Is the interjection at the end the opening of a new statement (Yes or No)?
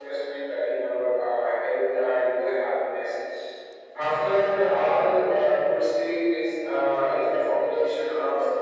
No